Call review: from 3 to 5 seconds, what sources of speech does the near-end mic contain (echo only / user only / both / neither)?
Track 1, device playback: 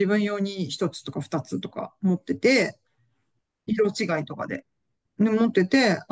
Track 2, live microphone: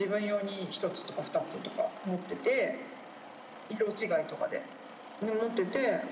echo only